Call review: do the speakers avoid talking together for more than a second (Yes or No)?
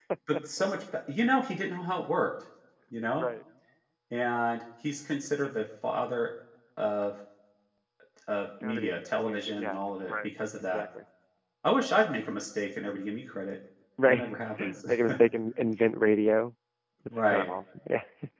No